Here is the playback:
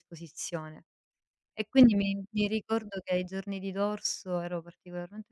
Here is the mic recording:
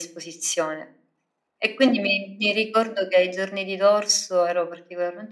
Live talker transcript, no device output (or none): none